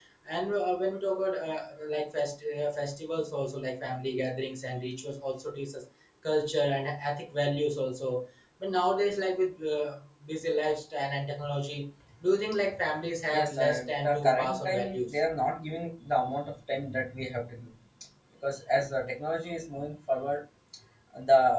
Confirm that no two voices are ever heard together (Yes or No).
No